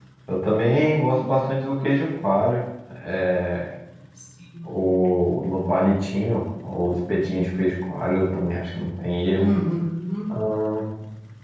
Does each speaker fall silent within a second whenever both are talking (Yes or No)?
Yes